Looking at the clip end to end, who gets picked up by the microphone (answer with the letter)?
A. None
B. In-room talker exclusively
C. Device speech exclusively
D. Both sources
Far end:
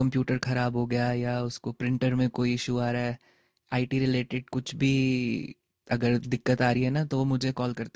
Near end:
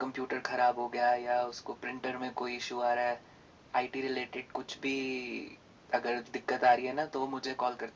C